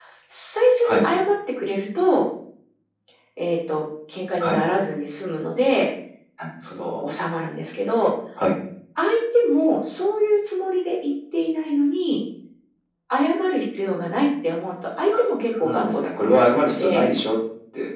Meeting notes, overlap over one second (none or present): present